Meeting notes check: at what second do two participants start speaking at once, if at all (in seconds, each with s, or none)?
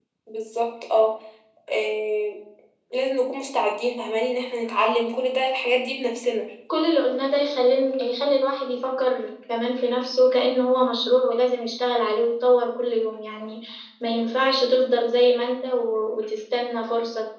none